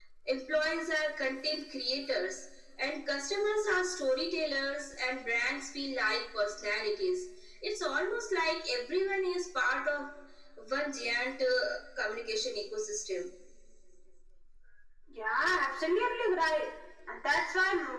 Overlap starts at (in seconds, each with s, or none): none